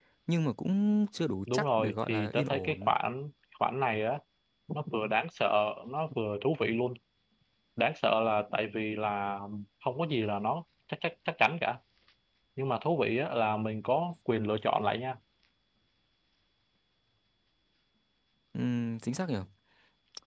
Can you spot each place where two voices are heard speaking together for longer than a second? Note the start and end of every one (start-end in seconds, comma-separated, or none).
1.5-2.9